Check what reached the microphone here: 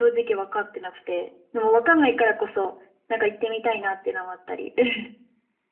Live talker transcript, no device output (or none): none